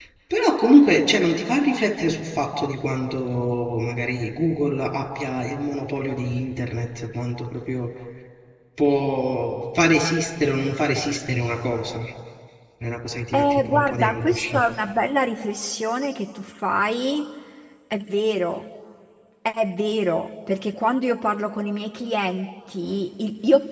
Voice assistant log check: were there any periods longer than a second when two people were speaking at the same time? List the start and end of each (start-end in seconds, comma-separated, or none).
13.3-14.6